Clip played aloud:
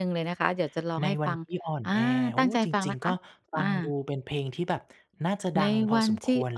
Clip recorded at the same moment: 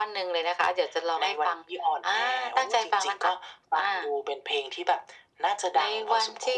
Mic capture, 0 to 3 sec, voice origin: echo only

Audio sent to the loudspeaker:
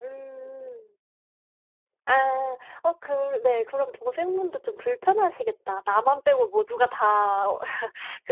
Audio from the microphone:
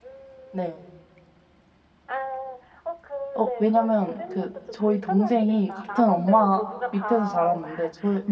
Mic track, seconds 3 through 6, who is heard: both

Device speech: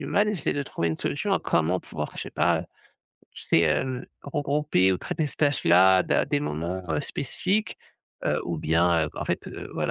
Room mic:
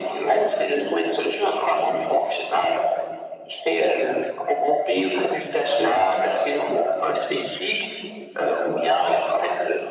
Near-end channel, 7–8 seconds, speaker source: echo only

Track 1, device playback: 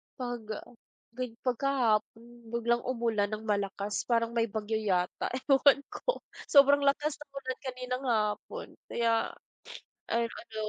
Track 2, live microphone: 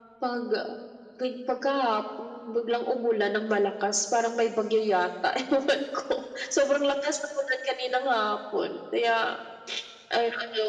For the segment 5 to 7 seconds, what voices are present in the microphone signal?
echo only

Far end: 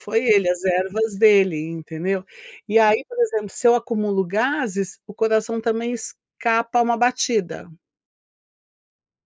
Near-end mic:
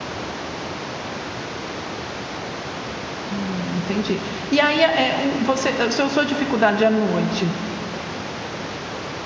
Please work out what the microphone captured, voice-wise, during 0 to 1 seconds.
neither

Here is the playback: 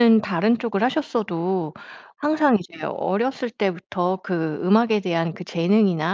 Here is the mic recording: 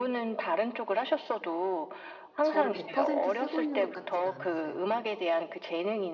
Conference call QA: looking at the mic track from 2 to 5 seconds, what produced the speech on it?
both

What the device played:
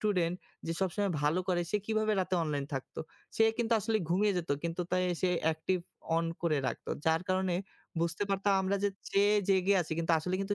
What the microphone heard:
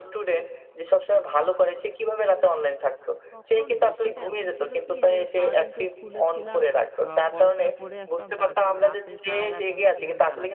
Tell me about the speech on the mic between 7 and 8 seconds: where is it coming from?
both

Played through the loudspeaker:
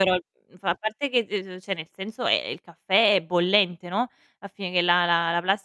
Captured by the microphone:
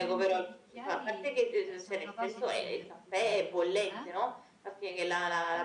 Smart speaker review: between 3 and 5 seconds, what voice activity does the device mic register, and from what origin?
both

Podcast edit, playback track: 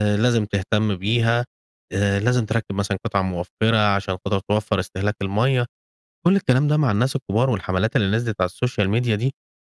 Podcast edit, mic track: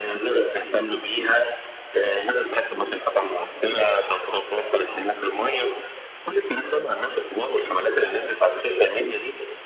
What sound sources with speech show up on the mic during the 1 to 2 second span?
echo only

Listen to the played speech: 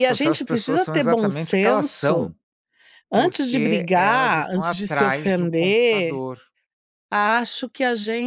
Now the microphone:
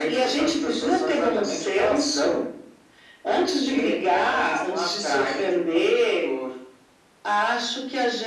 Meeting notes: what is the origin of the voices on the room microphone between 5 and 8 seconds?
echo only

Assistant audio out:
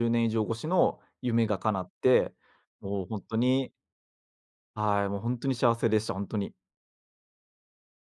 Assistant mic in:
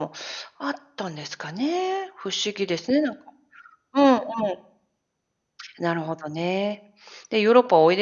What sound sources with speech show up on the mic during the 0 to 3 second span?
user only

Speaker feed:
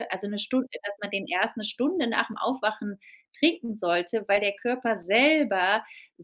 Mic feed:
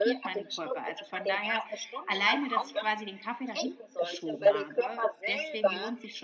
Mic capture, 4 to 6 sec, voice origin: both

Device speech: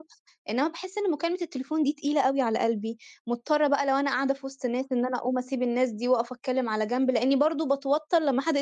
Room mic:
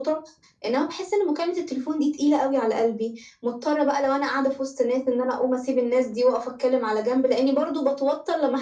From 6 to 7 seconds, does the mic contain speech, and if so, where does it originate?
echo only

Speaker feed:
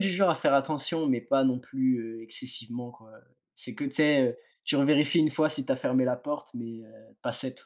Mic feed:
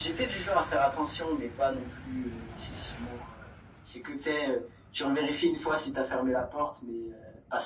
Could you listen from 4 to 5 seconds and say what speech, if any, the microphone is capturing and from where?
echo only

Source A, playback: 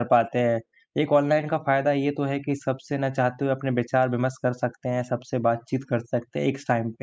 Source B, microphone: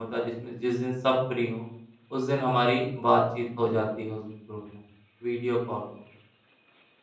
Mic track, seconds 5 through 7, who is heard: user only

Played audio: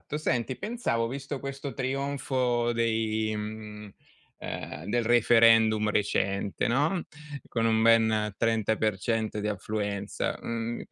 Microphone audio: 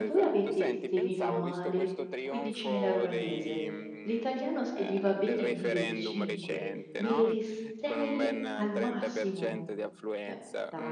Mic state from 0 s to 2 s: both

